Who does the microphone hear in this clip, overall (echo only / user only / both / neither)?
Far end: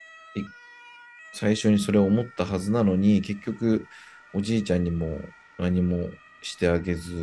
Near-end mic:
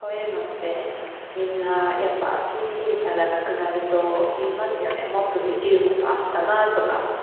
user only